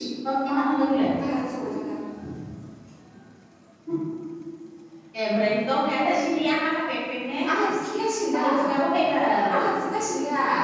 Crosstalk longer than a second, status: none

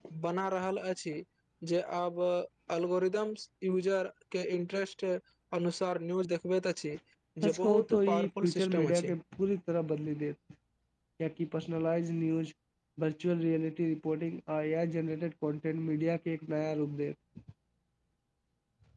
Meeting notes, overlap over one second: present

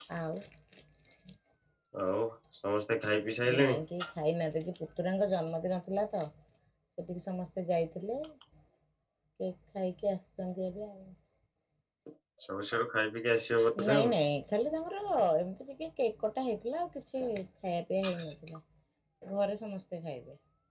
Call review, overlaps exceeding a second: none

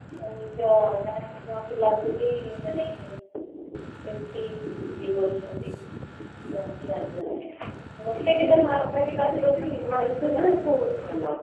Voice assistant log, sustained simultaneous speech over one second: present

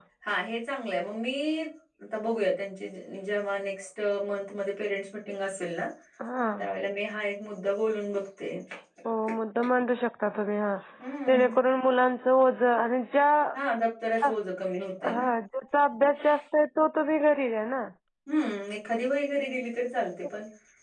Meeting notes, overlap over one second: none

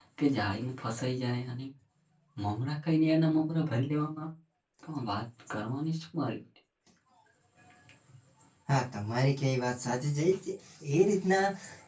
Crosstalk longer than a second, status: none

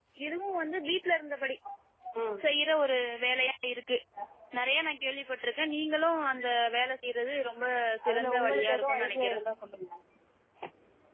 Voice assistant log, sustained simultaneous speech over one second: present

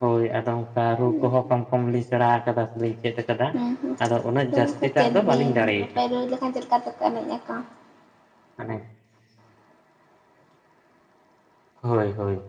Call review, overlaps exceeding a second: present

